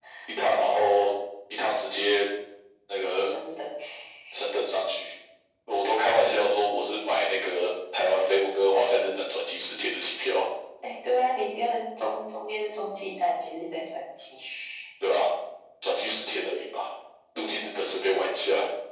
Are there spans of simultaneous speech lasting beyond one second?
No

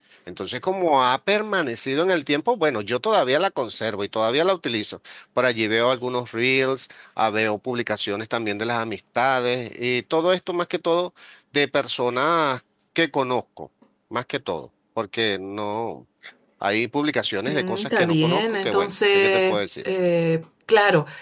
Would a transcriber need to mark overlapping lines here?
Yes, from 17.5 s

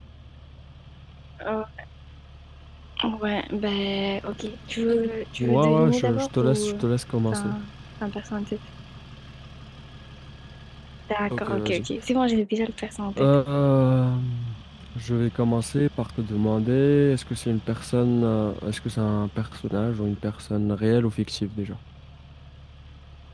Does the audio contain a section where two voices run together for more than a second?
Yes, from 5.4 s

